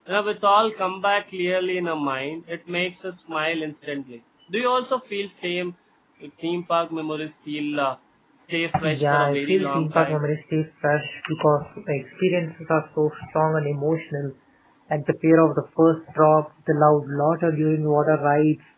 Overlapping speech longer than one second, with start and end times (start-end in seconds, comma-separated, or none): 8.9-10.2